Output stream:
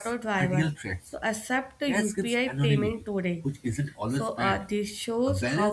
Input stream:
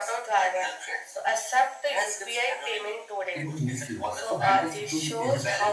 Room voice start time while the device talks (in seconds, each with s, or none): 3.3 s